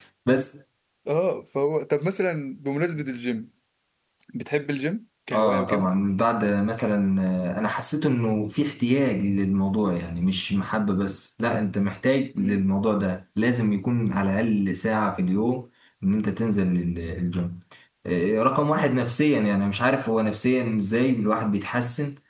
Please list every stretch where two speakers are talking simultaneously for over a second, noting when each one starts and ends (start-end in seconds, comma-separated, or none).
none